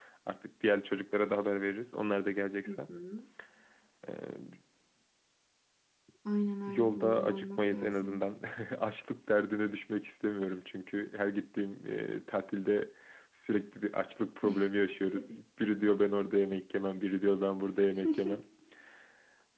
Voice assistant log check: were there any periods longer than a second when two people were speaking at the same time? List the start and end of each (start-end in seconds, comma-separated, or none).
6.7-8.2